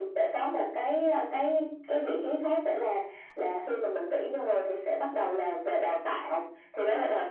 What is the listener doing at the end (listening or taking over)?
listening